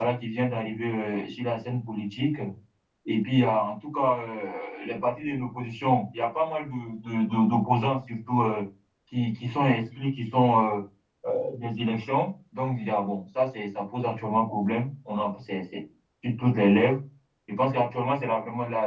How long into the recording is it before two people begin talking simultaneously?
none

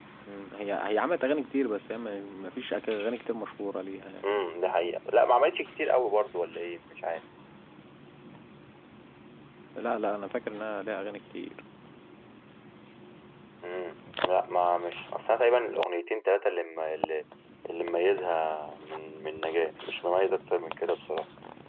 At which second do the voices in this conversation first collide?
none

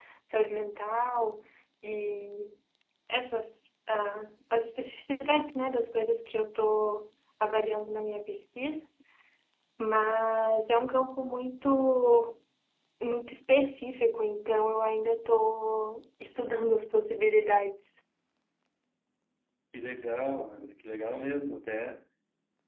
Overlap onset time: none

